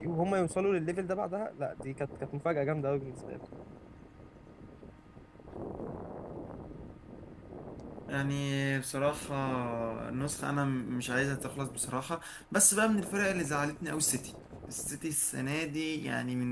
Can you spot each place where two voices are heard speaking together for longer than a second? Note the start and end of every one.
none

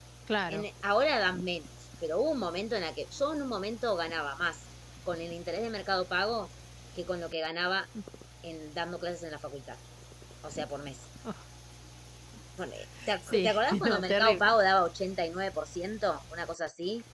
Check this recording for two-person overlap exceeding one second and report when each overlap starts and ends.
13.3-14.5

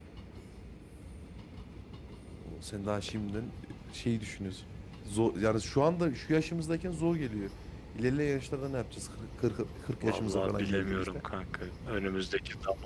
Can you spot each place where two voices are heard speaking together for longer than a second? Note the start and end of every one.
10.0-11.2

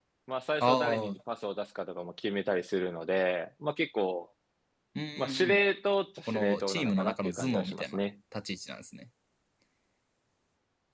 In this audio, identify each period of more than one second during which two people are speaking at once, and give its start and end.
6.3-8.0

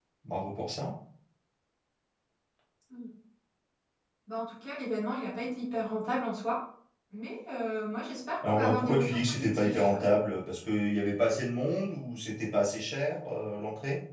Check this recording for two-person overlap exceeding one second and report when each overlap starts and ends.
8.4-9.9

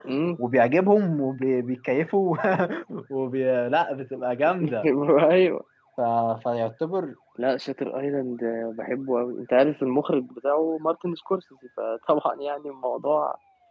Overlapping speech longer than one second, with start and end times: none

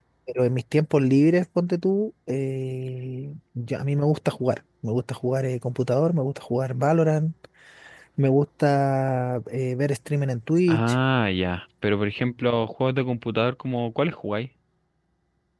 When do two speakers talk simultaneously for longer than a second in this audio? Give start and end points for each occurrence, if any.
none

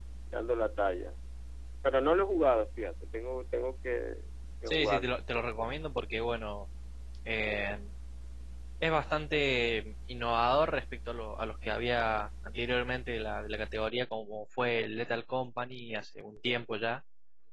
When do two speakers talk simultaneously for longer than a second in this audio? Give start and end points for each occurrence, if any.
none

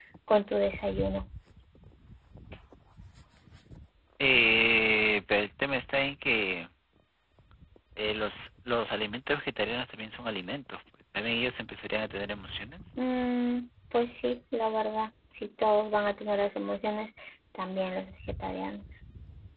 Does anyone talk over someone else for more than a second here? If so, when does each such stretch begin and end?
none

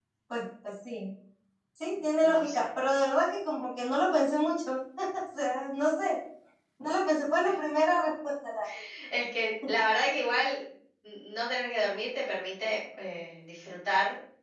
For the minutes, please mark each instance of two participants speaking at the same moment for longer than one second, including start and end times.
none

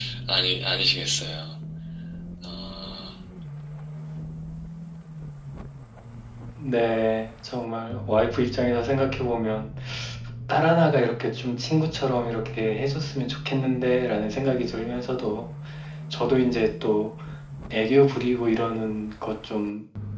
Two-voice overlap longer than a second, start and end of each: none

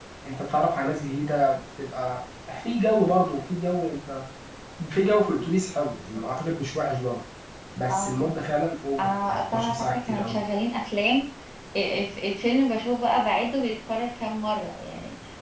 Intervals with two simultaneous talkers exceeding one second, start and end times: 9.0-10.4

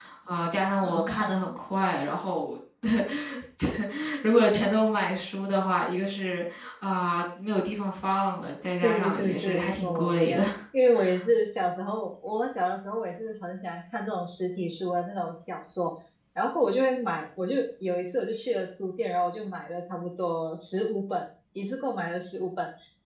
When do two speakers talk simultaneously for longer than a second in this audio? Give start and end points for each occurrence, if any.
8.8-10.4

